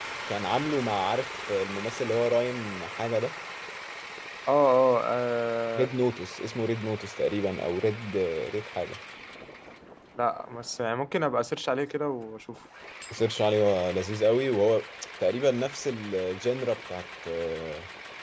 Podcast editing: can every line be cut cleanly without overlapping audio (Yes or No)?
Yes